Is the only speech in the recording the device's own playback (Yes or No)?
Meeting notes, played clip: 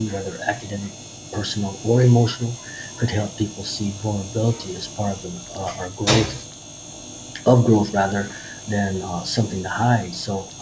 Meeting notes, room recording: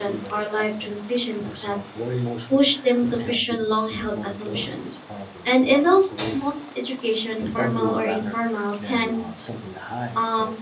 No